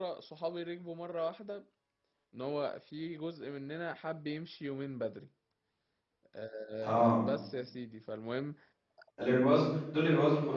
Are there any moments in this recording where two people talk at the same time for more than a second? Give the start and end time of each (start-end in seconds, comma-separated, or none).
none